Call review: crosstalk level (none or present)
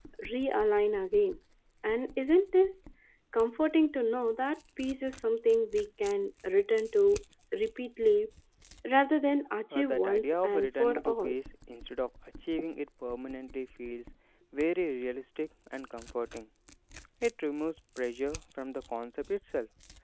present